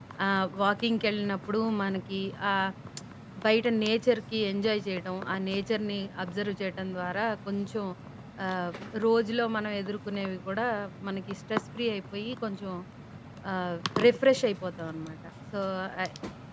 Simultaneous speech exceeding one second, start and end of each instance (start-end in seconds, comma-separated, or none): none